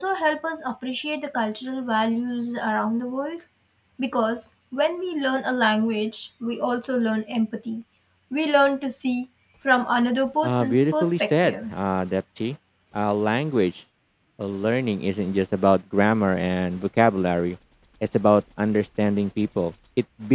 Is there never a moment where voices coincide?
No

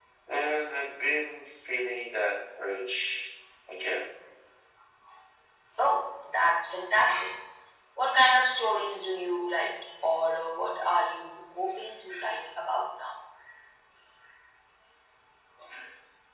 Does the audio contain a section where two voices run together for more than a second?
No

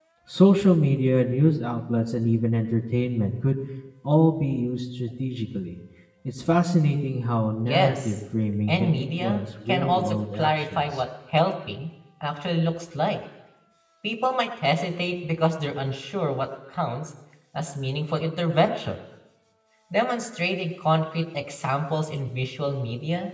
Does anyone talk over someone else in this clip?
Yes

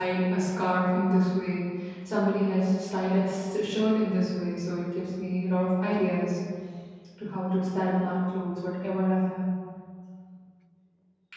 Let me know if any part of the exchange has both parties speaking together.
No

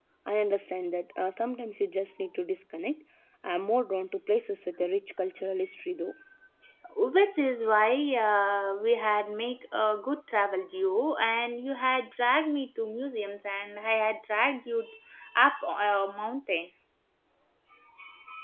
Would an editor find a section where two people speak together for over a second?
No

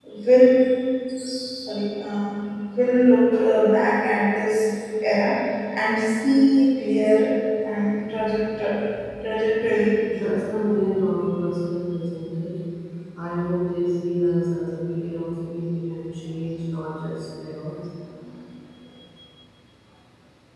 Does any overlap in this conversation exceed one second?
No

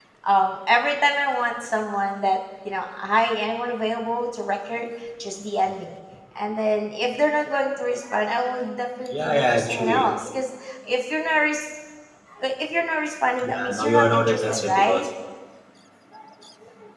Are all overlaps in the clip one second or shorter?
No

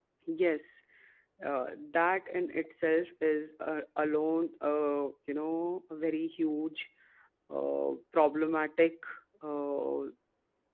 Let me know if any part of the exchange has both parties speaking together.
No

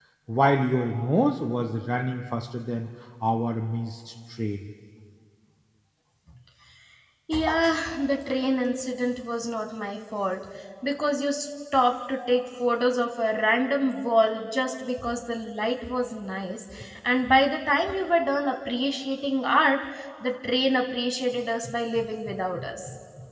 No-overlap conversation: Yes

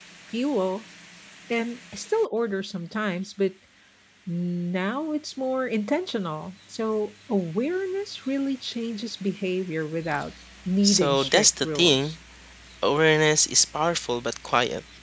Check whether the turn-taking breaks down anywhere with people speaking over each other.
Yes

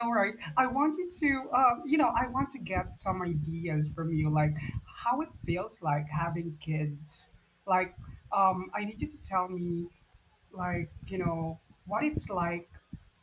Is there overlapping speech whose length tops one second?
No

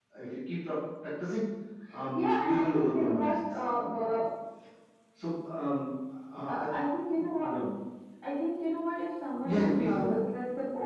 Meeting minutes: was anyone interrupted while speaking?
Yes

